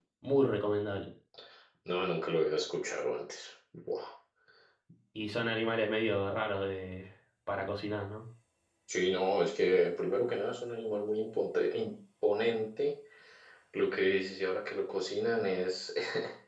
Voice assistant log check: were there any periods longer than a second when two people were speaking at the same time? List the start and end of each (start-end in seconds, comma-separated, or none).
none